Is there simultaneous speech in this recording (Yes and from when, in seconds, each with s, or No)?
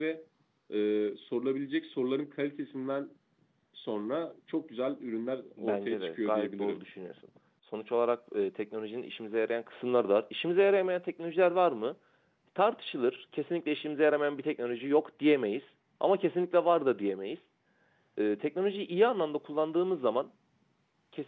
Yes, from 5.6 s